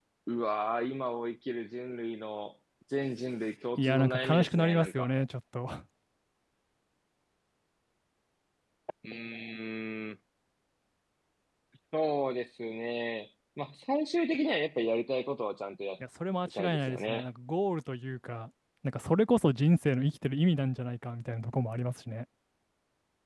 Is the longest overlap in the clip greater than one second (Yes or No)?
Yes